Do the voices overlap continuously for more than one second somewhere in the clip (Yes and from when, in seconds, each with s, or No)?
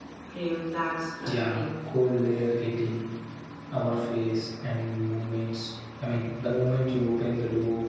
No